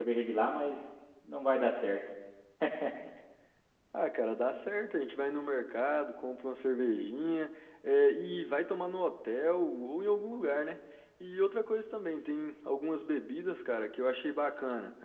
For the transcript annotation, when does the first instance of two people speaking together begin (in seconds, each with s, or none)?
none